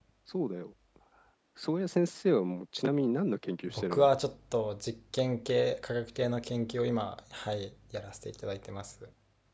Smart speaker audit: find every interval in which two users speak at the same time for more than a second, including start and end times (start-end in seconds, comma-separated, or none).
none